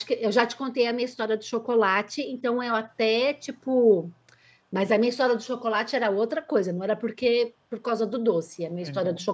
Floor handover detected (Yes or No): No